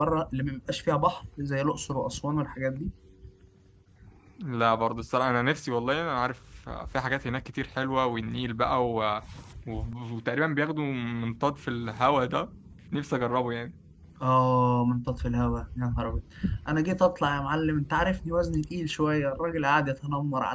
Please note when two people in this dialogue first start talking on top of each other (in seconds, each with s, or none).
none